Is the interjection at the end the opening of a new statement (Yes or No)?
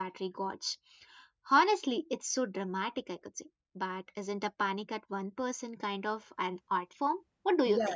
Yes